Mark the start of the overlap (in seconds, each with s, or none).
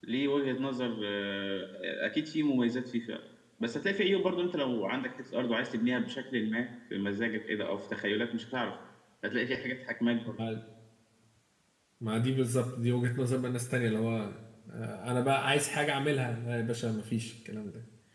none